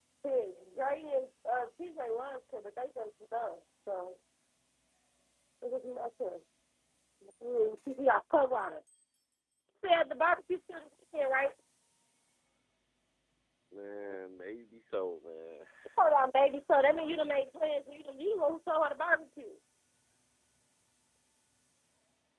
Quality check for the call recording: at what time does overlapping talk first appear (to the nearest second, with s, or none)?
none